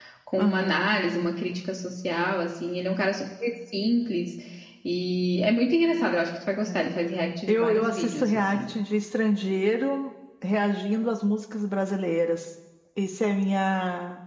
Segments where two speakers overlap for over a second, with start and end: 7.5-8.7

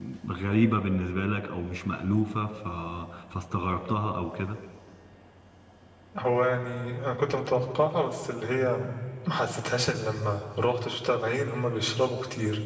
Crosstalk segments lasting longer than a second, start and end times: none

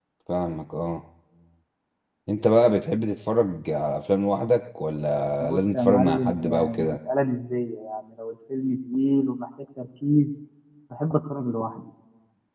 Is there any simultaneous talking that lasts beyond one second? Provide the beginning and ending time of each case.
5.4-7.0

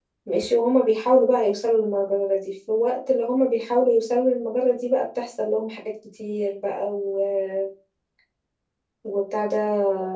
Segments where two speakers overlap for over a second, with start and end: none

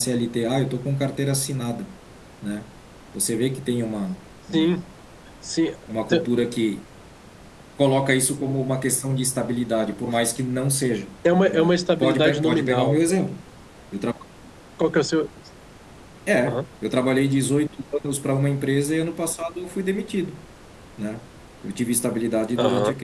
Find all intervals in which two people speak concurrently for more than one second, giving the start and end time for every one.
11.3-13.2

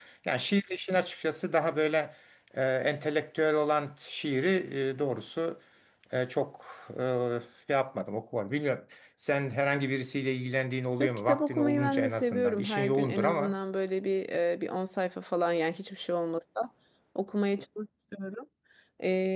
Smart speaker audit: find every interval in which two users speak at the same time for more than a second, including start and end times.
11.0-13.6

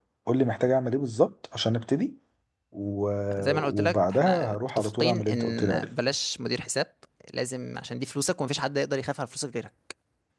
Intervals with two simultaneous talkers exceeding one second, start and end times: 3.5-5.9

